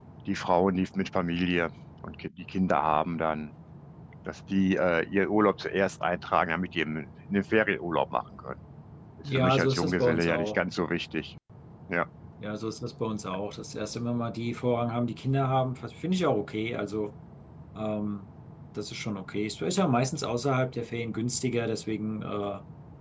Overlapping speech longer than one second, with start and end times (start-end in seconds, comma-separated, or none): 9.2-10.6